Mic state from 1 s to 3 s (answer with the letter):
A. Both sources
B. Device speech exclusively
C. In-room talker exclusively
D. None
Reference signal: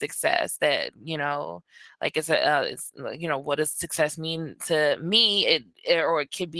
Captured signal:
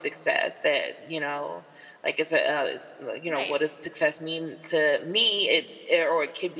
B